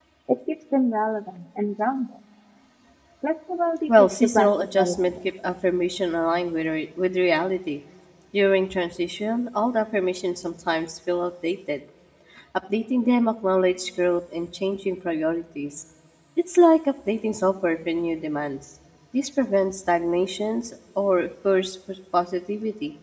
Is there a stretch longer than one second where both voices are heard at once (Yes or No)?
Yes